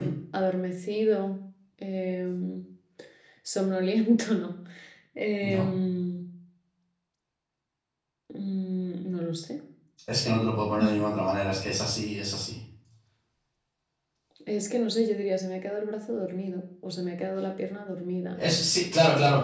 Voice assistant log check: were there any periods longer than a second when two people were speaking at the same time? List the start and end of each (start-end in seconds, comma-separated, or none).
none